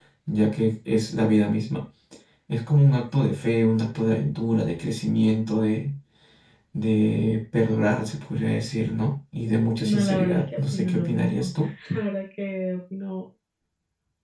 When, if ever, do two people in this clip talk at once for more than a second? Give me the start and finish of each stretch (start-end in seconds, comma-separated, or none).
9.8-11.5